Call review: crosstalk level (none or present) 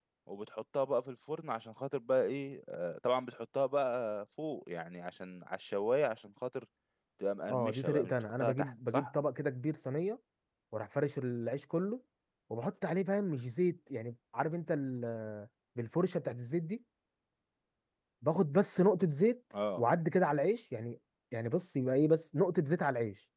present